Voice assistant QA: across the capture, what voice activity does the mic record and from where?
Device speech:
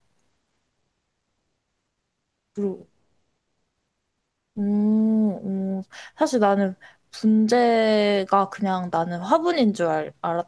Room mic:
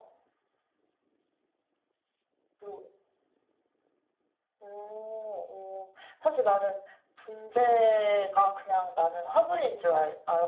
echo only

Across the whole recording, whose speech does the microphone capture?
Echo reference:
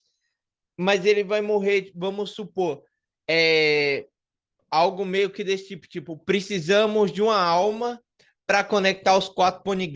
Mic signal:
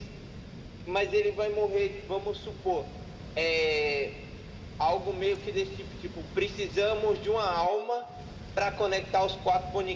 echo only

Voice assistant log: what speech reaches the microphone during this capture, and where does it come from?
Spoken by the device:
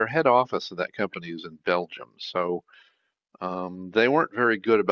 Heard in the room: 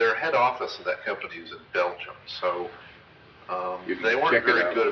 both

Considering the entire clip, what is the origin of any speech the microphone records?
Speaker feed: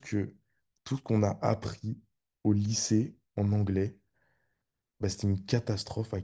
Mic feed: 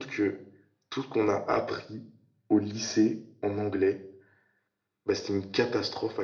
echo only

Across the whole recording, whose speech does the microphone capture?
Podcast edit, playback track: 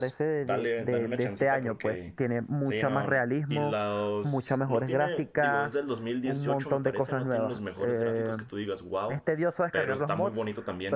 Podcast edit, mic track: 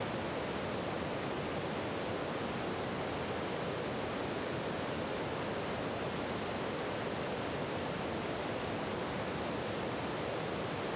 neither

